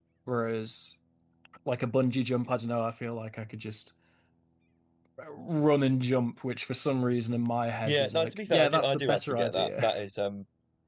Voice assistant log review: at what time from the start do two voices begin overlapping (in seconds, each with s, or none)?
7.8 s